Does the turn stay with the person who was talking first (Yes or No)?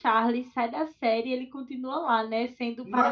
Yes